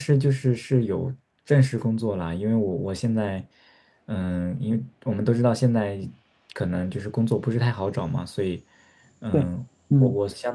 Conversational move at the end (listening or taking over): listening